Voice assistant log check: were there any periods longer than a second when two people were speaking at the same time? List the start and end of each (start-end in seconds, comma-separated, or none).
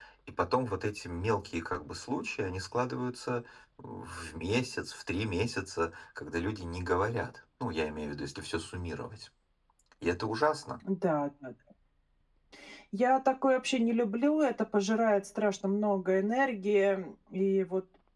none